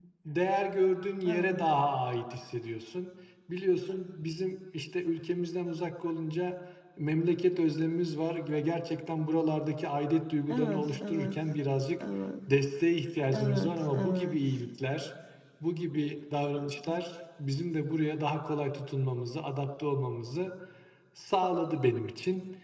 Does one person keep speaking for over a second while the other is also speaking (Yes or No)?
Yes